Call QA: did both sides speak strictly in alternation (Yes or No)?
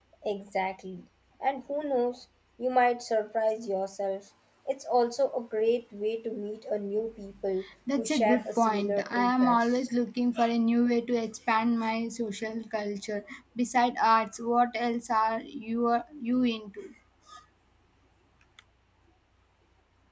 No